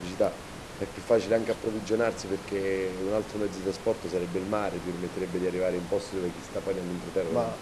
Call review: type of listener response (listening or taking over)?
taking over